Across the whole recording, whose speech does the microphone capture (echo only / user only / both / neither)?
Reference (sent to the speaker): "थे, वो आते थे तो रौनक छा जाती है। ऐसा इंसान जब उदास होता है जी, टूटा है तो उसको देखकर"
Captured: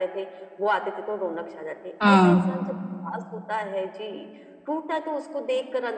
both